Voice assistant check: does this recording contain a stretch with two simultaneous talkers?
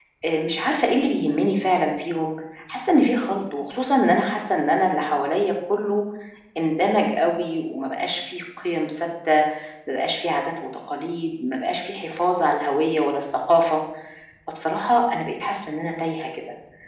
No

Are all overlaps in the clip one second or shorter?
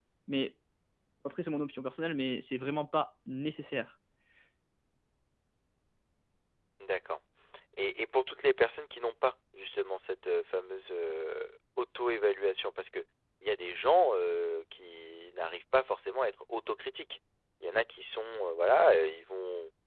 Yes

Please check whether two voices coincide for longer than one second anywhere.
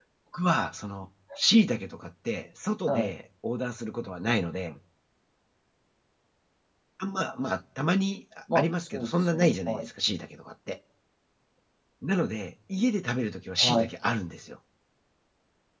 Yes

